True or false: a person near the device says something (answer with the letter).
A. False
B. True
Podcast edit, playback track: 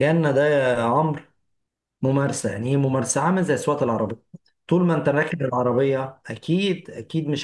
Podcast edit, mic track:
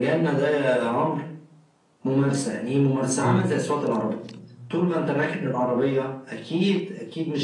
B